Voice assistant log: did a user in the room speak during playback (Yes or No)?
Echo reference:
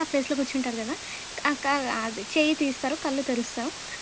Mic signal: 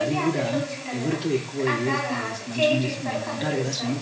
Yes